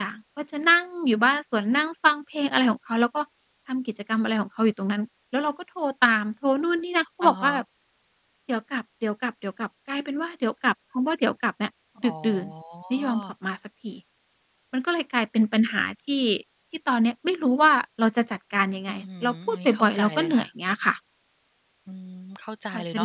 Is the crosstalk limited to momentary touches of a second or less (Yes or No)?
No